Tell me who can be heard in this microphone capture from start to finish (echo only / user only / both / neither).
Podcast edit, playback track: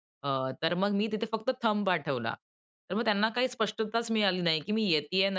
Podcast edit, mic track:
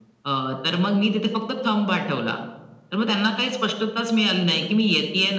echo only